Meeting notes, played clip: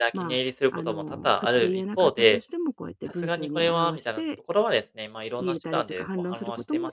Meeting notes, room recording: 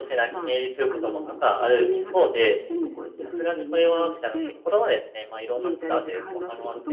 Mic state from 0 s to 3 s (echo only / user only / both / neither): echo only